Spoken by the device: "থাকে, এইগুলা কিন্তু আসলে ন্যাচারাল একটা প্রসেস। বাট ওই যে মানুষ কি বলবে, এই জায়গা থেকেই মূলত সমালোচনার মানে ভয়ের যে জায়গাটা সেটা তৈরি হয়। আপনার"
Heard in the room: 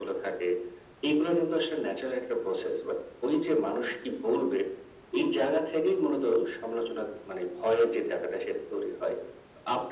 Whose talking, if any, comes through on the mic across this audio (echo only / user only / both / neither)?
echo only